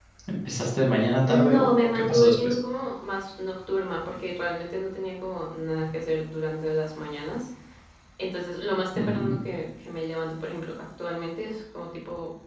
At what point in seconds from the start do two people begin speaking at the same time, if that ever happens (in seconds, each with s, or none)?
1.3 s